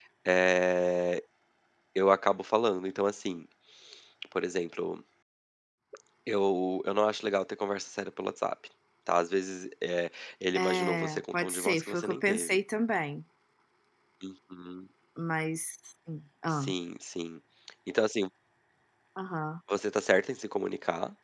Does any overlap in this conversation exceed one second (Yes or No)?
Yes